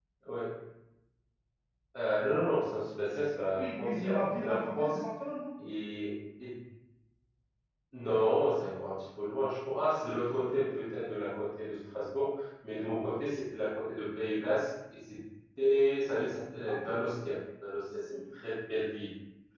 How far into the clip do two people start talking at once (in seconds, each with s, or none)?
3.6 s